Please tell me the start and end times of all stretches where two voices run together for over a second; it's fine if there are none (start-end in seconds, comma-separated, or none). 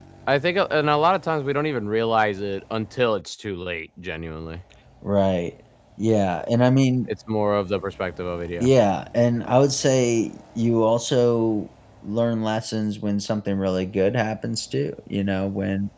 none